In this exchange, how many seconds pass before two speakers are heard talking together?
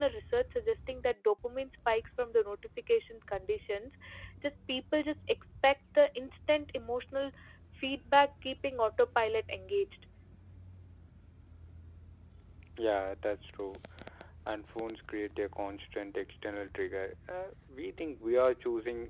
none

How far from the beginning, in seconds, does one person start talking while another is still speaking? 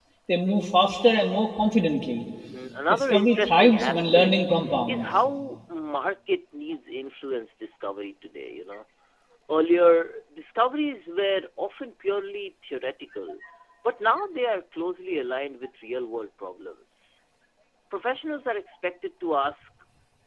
2.9 s

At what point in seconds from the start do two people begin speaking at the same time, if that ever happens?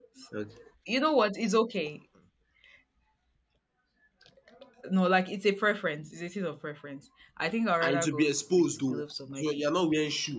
7.8 s

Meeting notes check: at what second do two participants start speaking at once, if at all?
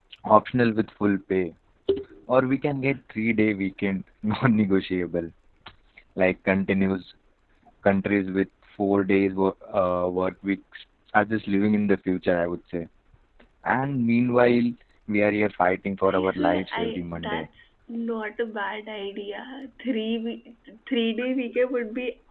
16.1 s

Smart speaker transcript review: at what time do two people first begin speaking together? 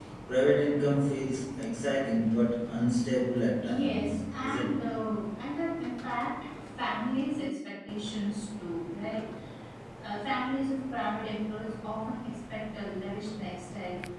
3.6 s

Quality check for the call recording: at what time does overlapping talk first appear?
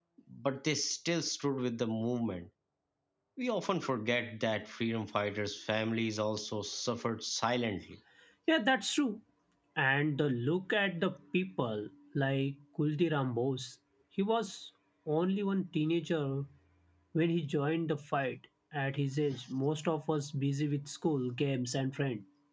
none

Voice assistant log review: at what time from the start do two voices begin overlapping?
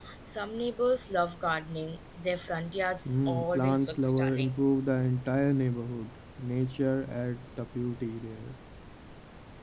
3.0 s

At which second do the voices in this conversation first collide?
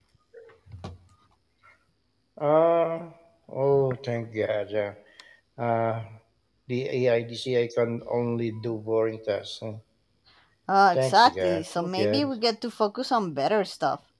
10.9 s

